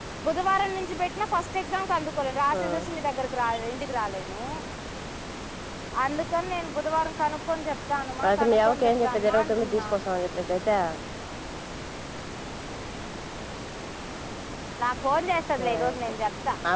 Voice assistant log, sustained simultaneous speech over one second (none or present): present